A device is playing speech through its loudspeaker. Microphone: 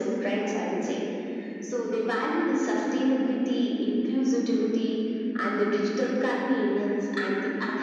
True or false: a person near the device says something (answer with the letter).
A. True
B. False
B